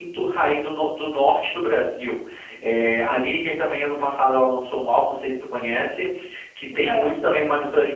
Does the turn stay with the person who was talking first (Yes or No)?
Yes